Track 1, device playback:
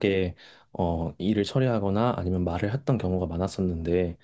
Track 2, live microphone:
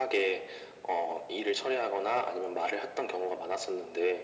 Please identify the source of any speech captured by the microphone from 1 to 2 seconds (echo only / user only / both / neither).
echo only